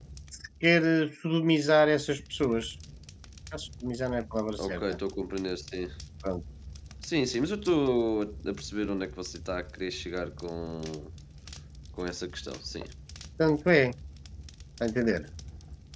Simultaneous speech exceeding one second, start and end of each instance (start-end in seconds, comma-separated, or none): none